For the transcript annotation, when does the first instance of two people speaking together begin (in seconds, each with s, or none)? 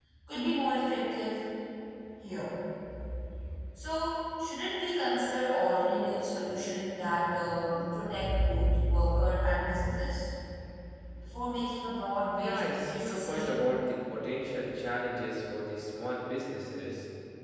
12.4 s